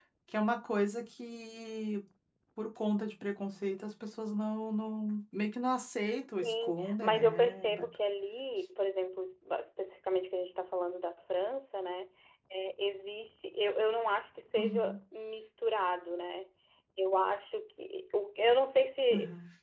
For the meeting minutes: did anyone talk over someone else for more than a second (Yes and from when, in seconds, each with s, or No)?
Yes, from 6.4 s